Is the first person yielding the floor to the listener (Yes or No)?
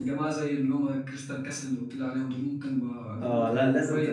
Yes